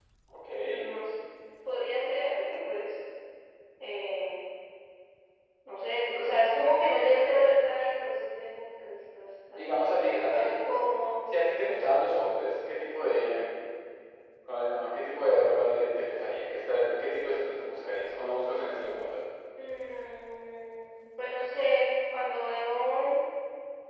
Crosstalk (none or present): present